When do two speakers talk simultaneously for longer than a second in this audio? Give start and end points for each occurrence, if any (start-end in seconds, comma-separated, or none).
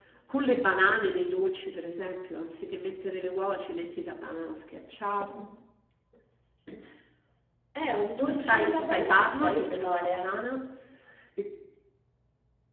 8.2-10.4